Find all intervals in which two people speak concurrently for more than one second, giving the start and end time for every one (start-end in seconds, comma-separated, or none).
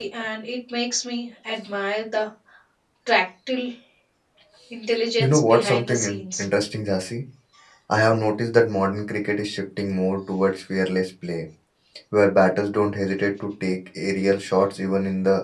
5.2-6.5